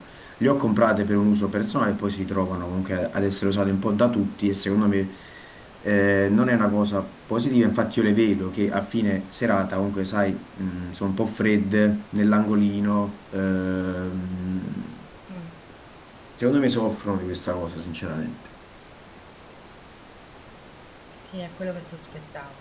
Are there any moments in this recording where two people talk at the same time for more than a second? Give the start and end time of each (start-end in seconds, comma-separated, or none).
none